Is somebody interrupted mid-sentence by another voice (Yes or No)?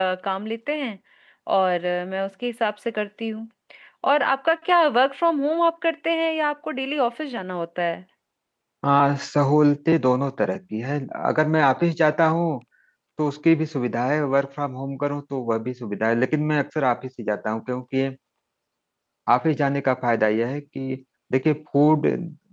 No